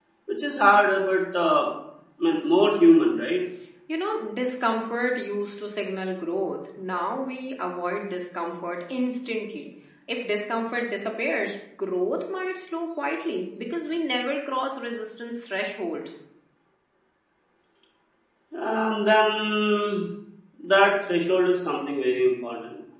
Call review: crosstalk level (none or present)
none